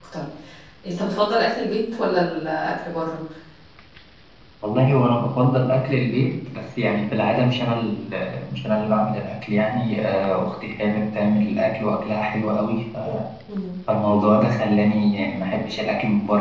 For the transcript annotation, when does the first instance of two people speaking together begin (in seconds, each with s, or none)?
none